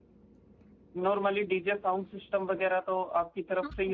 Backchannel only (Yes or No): No